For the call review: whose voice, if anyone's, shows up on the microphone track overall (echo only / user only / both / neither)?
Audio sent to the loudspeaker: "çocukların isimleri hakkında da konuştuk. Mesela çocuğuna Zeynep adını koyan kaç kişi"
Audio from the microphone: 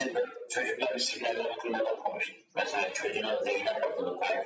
echo only